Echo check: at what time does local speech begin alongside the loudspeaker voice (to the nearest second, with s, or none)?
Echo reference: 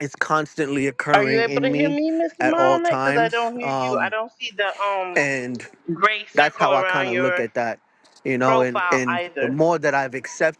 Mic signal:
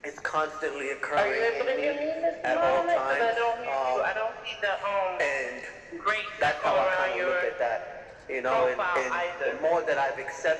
none